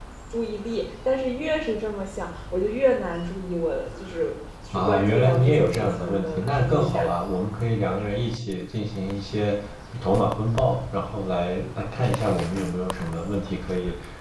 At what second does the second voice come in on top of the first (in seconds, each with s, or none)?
4.7 s